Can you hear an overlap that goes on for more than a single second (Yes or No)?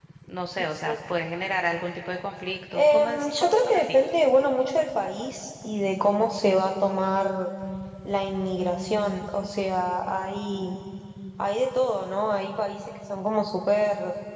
Yes